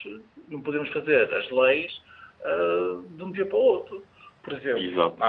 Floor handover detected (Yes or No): No